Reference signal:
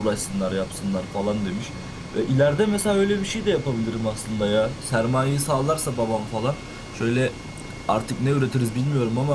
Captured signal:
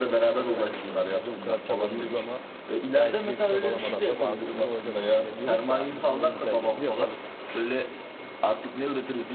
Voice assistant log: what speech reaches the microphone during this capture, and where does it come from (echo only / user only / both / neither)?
both